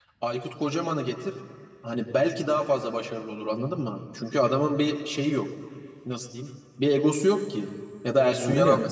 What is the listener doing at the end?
listening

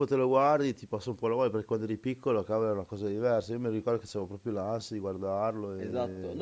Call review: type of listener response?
taking over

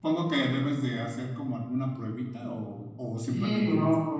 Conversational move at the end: taking over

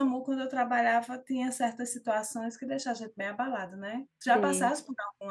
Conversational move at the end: listening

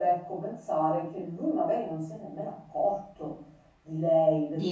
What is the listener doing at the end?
listening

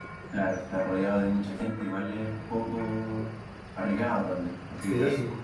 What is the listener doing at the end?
taking over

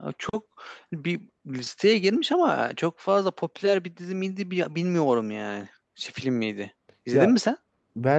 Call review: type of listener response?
taking over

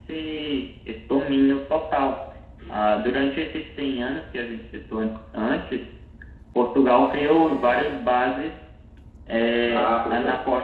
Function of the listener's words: listening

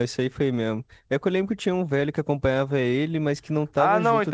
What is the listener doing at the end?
taking over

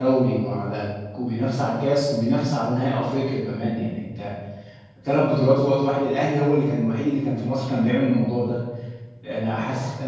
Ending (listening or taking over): listening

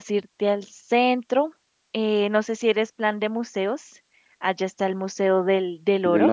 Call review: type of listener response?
taking over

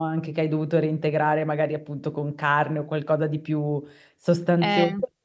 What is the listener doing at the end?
listening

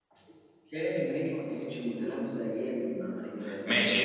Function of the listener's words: taking over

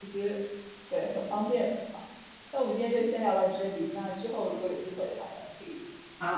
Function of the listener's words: taking over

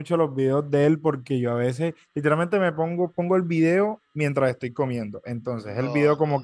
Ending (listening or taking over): listening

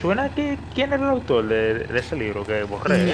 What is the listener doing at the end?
taking over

